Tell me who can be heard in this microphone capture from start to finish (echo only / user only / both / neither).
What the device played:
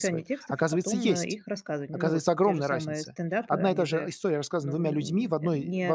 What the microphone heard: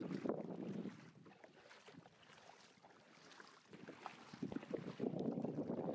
neither